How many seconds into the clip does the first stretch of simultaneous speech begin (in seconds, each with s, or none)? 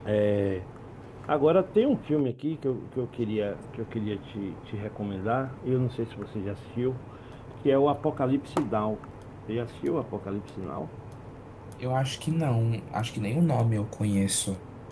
none